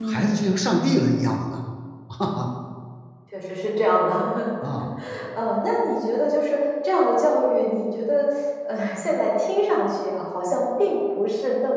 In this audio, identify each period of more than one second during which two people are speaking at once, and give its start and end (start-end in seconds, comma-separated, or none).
none